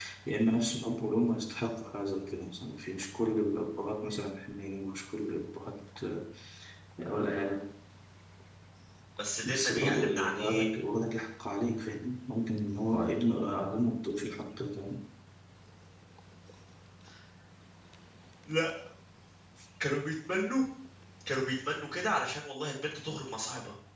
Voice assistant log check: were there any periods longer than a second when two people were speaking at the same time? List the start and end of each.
9.4-10.7

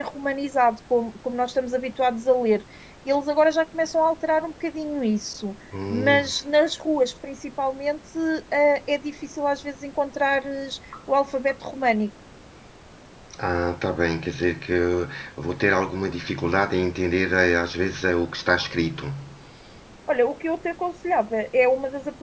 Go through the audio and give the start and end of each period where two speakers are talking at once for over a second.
none

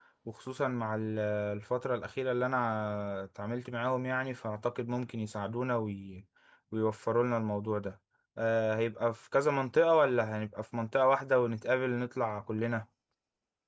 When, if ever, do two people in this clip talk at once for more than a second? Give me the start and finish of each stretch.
none

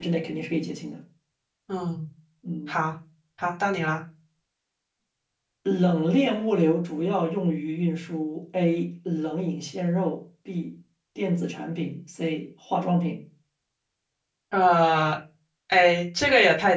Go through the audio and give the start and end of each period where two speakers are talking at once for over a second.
none

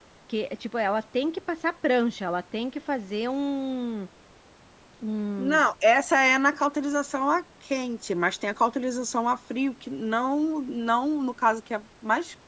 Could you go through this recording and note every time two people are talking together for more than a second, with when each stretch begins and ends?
none

